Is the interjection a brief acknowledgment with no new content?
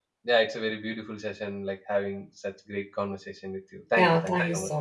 No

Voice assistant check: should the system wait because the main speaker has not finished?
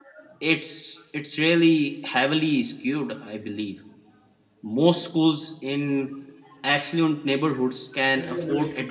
Yes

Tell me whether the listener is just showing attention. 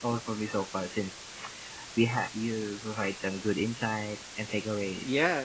No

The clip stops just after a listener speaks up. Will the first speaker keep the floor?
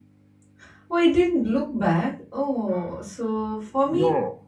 Yes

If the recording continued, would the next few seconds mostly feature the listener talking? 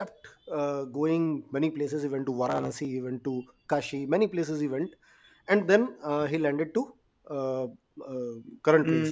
Yes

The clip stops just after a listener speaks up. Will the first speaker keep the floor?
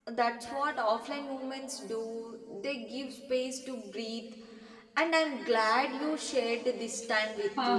No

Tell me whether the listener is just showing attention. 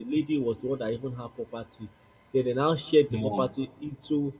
Yes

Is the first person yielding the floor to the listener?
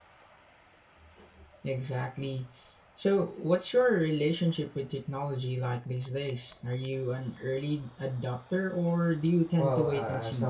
Yes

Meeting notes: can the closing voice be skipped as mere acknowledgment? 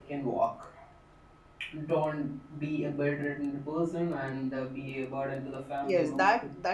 No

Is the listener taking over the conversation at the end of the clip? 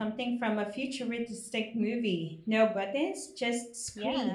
Yes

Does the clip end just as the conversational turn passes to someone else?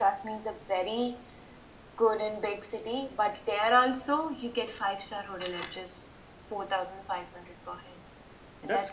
Yes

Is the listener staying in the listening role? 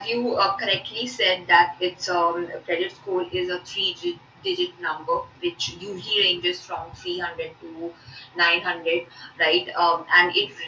Yes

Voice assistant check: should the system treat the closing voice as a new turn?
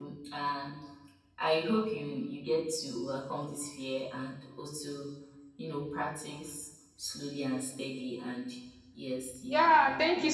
Yes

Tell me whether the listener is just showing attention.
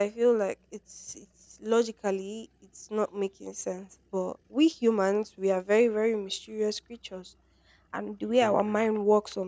Yes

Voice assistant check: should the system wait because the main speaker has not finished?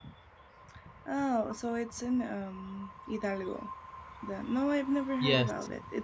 Yes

